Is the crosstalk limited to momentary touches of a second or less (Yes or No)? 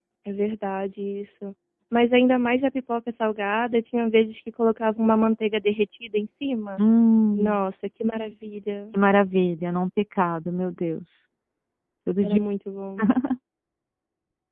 Yes